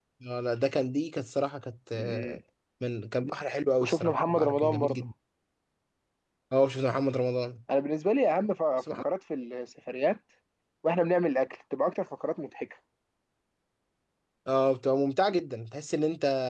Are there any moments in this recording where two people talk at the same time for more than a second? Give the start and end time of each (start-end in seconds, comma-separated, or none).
3.8-5.0